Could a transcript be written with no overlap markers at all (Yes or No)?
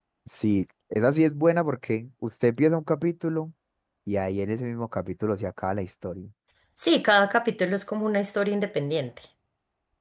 Yes